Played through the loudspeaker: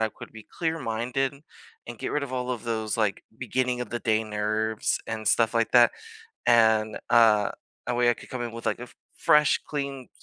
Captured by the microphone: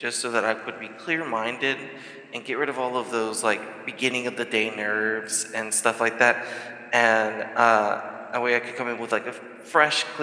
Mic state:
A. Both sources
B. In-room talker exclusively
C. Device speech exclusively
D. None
C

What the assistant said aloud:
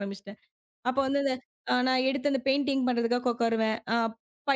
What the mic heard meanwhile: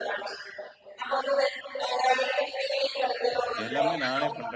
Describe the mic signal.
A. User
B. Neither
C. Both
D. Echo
C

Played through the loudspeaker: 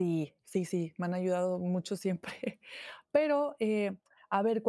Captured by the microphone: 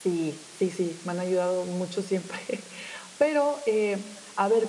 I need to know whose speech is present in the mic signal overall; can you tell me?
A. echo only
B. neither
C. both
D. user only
A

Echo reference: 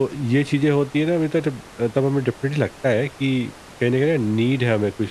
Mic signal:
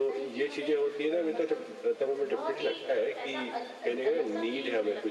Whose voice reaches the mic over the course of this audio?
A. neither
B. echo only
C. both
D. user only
C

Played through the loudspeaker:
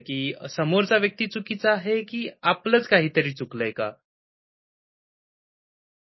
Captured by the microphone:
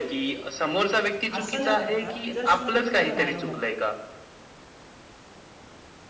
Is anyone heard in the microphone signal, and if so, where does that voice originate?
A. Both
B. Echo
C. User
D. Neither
A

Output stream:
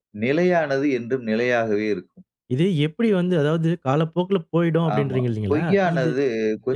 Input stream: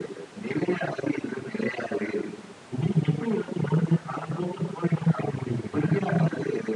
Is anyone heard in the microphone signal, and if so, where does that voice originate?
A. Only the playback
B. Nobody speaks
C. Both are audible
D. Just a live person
A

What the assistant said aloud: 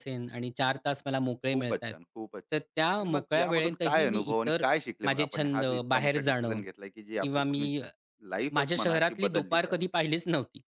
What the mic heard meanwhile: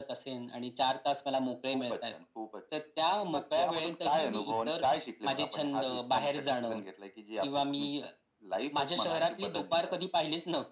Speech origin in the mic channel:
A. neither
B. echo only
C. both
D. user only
B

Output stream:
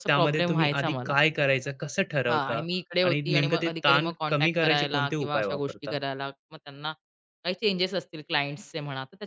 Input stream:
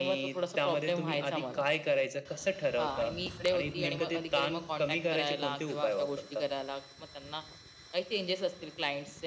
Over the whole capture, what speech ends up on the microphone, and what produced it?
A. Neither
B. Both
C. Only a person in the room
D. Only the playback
D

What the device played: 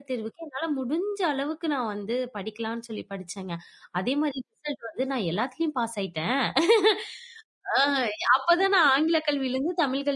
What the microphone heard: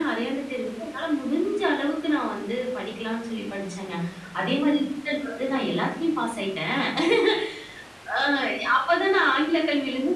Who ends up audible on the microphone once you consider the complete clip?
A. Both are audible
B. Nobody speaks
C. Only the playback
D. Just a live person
A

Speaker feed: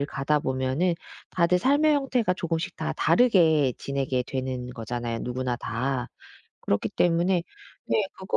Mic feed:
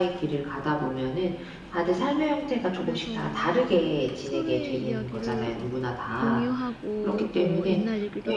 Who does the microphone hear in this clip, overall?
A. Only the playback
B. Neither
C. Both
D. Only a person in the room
C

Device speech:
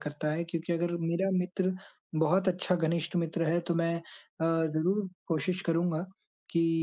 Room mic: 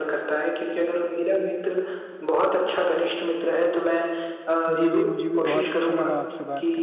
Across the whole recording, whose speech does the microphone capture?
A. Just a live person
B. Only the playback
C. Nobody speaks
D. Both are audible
D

